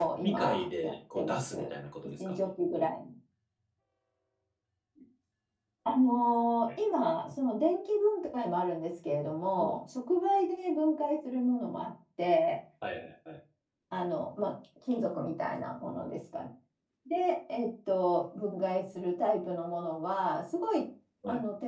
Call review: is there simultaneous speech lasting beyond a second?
Yes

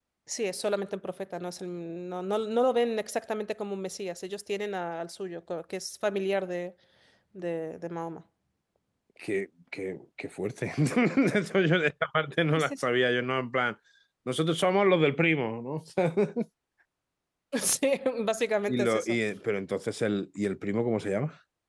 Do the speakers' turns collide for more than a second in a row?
No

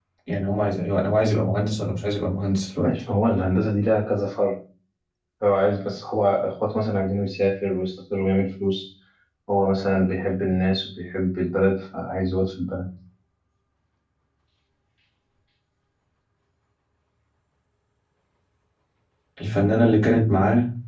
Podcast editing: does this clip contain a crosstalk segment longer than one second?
No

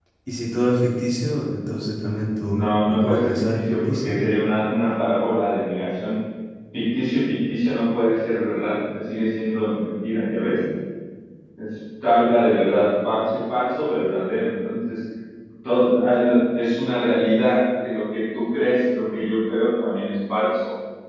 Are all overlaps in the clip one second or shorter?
No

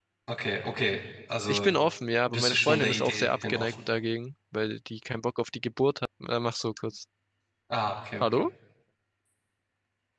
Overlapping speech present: Yes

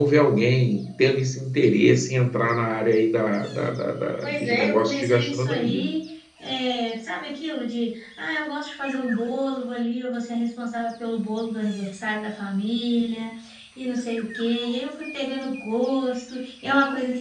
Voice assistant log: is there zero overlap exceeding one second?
No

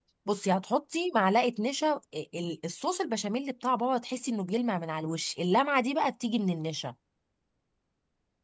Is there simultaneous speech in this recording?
No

